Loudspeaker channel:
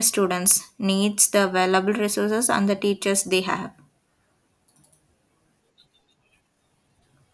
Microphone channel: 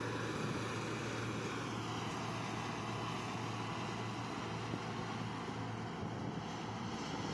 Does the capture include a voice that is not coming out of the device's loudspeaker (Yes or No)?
No